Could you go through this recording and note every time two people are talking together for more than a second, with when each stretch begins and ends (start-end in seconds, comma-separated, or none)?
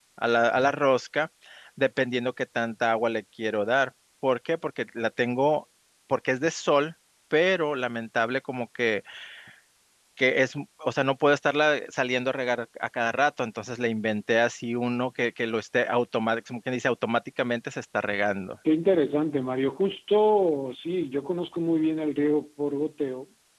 none